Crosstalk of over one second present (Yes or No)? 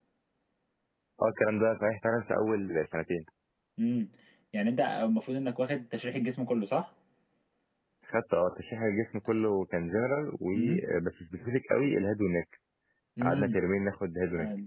No